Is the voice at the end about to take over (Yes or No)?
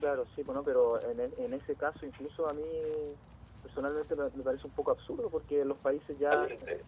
No